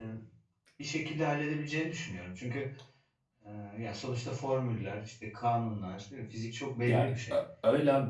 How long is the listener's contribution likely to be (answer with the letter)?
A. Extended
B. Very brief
A